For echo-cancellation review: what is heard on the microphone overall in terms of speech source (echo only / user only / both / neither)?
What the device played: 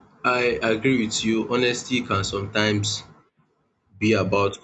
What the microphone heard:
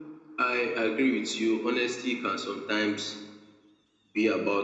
echo only